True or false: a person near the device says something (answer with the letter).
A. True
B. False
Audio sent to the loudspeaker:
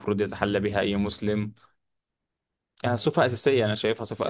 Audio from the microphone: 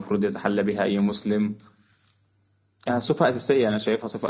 B